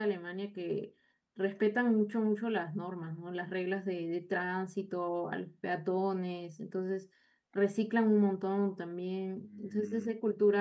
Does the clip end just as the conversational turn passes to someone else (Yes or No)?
No